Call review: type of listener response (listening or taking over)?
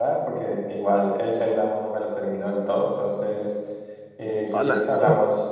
listening